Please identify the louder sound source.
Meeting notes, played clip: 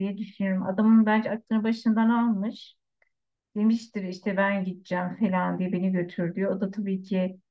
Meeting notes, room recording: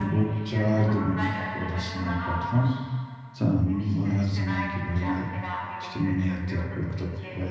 user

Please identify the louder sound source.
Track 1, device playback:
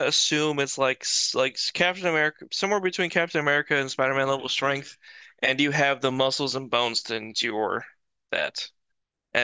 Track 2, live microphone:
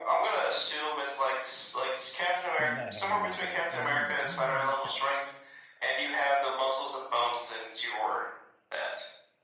echo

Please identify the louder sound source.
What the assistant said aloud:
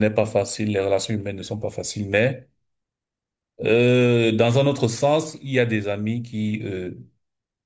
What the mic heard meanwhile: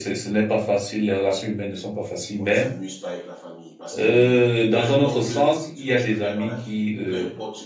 echo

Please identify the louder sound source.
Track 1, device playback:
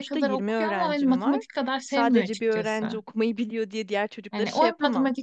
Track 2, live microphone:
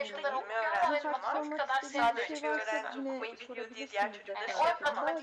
echo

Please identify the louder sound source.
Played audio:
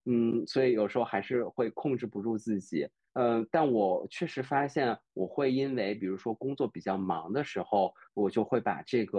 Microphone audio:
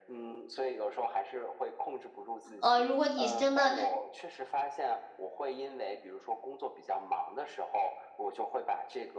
user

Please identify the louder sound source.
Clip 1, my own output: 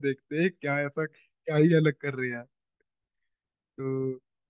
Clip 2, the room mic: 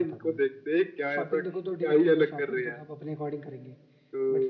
echo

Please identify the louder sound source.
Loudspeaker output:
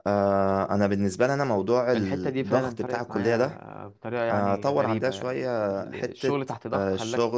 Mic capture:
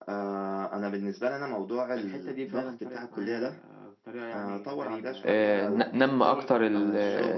user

